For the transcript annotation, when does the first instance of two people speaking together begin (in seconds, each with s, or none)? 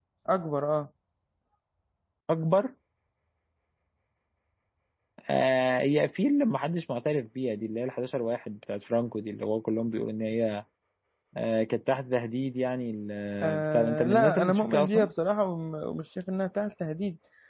13.4 s